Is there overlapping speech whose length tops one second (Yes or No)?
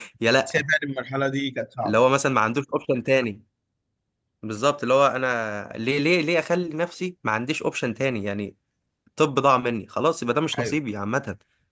No